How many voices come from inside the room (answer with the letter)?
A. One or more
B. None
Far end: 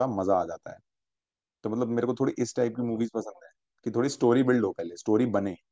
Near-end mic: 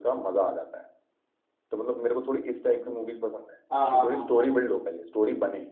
A